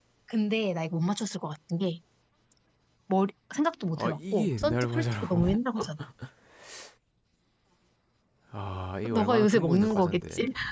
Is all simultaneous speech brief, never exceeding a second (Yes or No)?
No